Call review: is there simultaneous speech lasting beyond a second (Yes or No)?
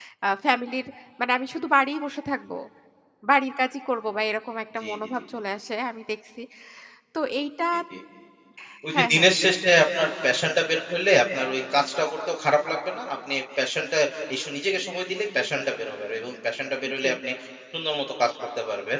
No